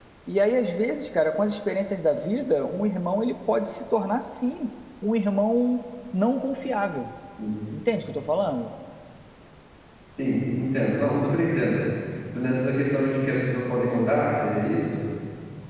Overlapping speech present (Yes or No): No